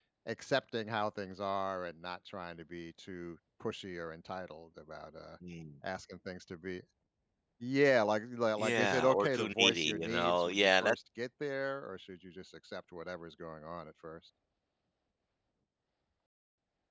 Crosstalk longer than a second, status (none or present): present